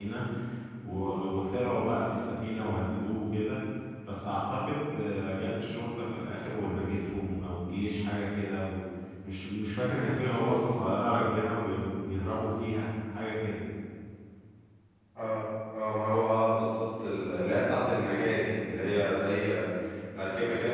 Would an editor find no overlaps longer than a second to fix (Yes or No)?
Yes